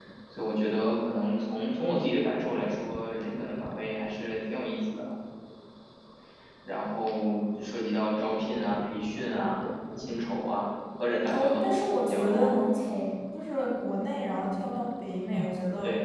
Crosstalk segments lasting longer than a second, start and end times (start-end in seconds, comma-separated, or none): 11.3-12.6